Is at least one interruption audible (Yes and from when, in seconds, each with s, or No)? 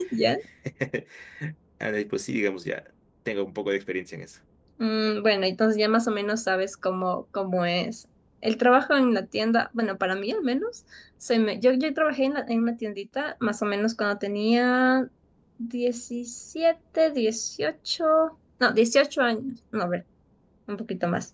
No